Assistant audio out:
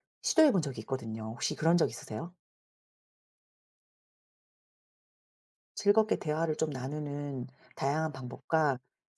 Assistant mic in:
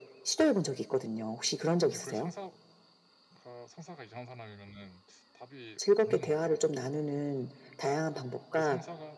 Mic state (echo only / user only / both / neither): both